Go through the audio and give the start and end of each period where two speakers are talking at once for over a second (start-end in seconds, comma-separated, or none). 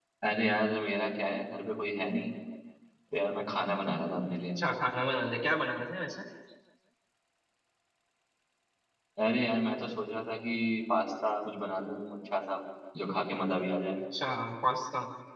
none